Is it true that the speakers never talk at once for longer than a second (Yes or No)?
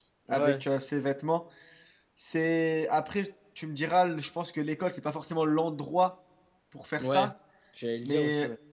Yes